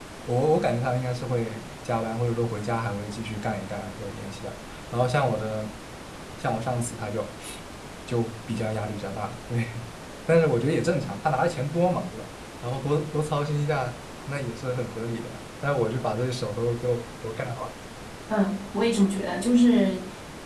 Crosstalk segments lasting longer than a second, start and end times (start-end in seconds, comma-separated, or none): none